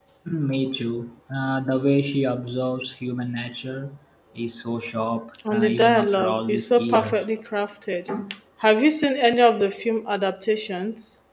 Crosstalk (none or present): present